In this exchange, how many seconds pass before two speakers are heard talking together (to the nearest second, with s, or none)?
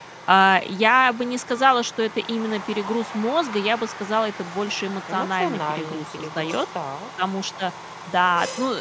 5 s